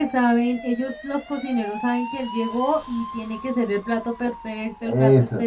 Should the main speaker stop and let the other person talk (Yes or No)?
Yes